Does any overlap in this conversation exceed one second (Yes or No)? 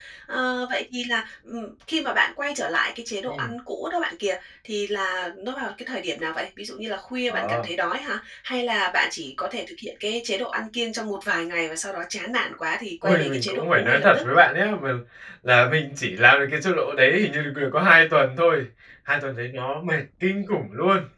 Yes